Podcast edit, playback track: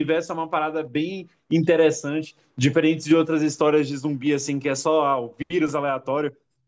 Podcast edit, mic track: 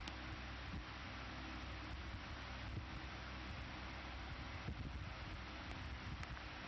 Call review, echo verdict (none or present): none